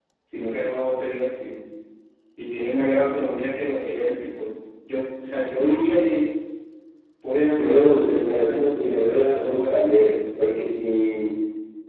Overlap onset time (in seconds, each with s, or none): 7.5 s